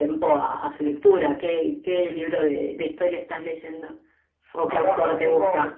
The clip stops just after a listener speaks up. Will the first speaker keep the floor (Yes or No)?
No